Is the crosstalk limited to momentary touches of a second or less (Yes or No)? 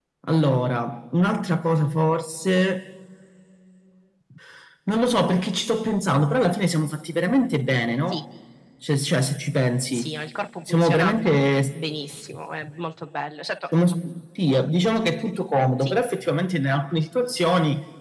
Yes